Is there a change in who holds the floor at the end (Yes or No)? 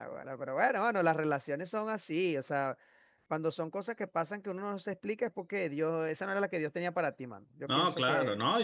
Yes